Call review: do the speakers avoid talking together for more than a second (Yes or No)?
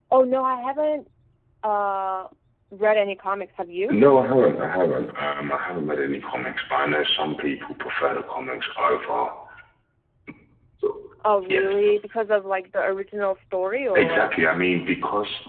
Yes